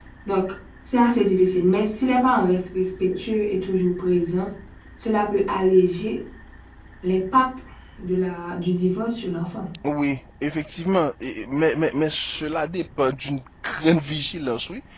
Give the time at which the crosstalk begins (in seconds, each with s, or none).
none